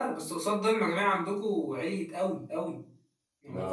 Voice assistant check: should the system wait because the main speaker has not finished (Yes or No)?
Yes